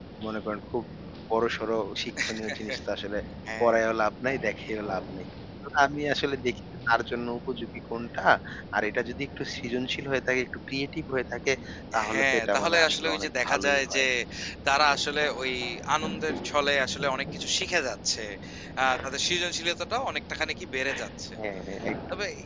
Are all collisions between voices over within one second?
No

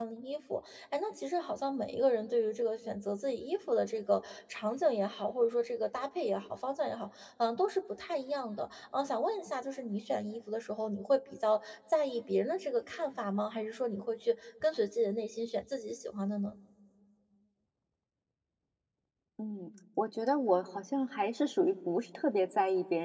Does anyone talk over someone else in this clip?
No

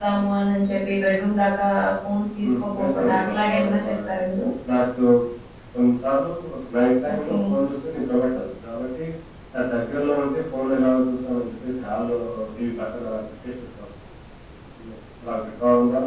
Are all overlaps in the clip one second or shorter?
No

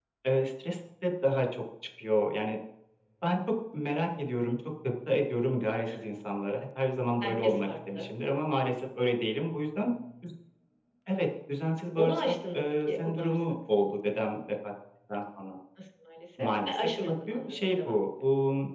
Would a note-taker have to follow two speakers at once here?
Yes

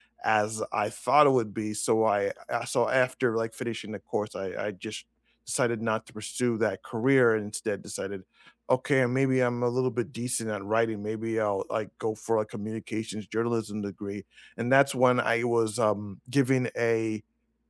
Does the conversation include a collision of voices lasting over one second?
No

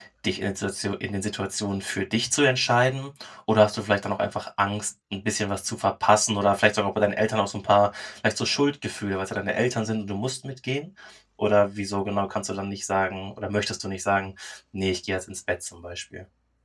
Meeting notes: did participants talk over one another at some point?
No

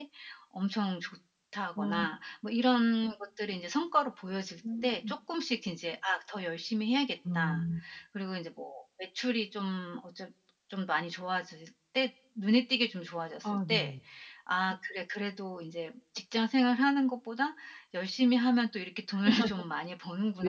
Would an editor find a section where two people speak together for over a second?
No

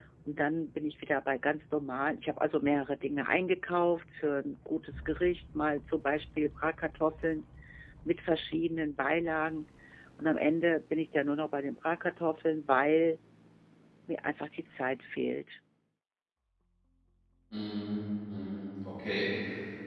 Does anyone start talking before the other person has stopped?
No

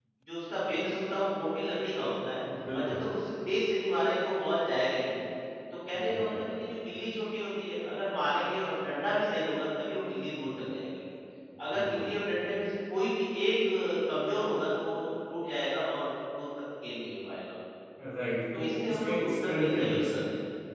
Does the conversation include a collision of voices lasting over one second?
Yes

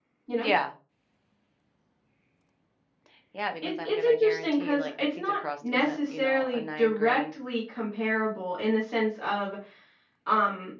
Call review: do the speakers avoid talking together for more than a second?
No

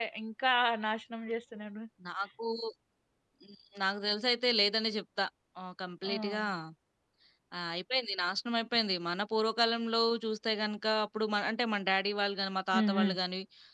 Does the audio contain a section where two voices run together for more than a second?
No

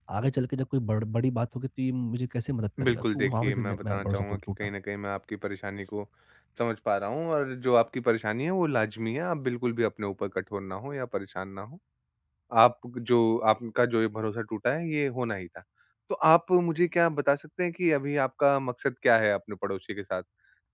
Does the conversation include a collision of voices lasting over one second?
Yes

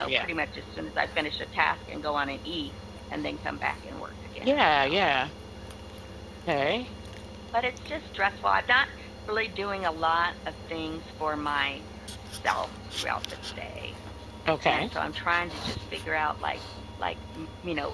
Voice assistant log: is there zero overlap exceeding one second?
Yes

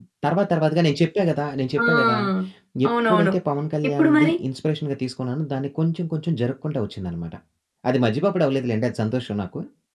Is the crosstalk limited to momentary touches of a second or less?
Yes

